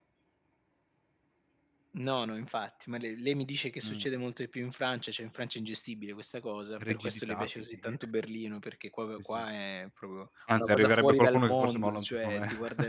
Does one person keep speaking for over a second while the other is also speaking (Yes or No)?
Yes